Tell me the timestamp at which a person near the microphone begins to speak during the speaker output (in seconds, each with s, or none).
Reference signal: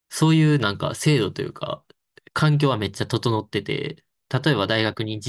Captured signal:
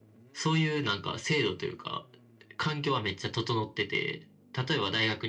none